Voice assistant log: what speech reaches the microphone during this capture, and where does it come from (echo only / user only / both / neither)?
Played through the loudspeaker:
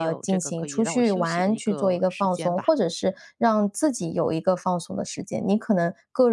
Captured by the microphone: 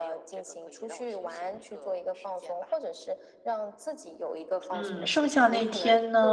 both